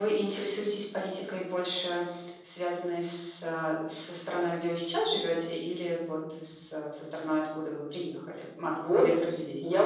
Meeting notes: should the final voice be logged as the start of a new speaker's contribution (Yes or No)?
Yes